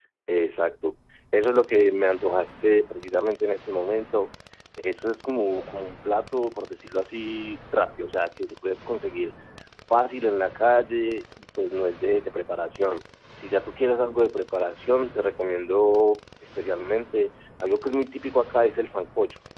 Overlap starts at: none

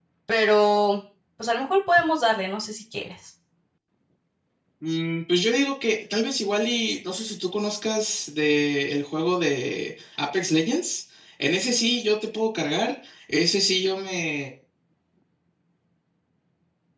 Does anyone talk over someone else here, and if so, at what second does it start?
none

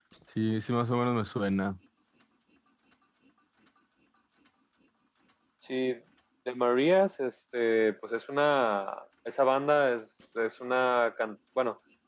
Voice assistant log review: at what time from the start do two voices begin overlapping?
none

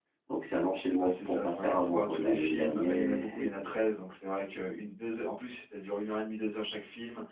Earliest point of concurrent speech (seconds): 1.0 s

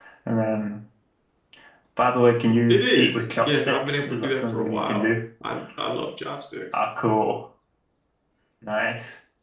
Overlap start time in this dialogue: 2.7 s

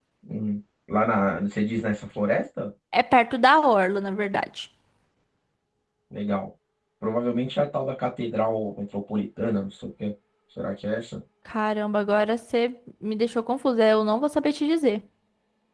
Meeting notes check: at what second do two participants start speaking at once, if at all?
none

